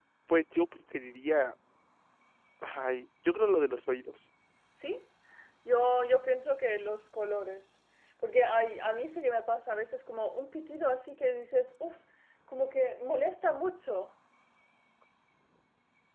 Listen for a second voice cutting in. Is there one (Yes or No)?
No